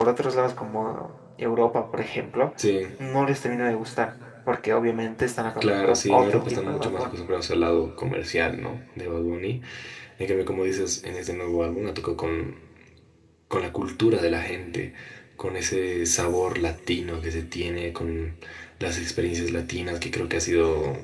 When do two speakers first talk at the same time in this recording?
5.6 s

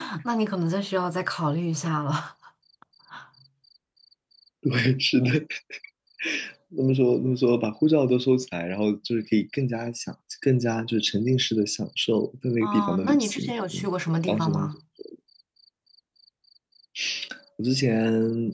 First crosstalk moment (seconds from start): 12.6 s

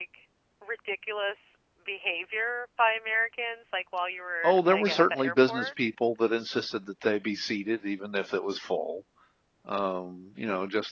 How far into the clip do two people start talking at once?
4.4 s

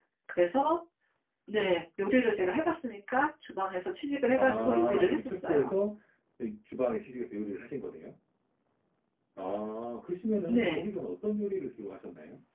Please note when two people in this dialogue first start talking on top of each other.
4.4 s

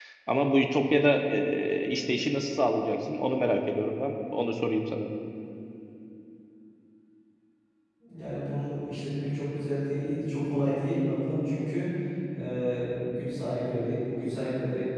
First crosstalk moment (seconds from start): none

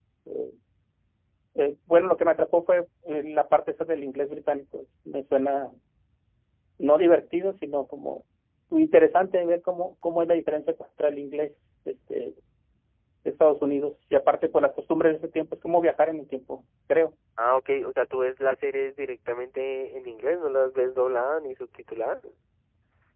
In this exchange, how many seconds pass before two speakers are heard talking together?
none

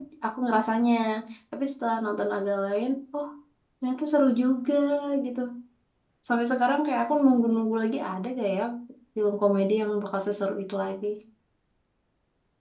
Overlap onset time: none

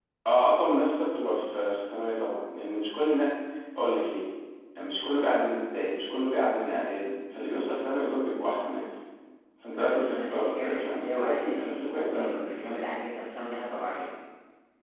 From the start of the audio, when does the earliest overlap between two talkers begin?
9.8 s

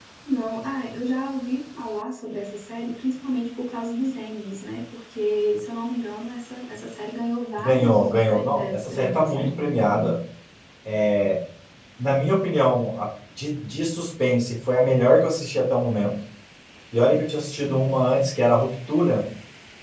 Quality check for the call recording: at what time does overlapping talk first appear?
7.6 s

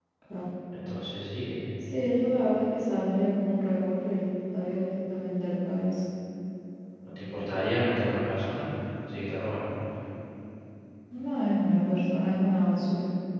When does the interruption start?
none

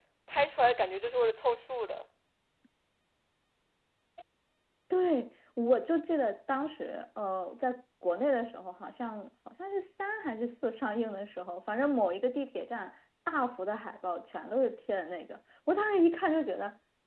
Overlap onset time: none

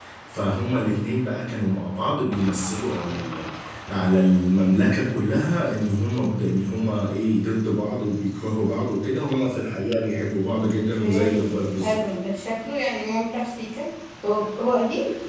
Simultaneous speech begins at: 10.6 s

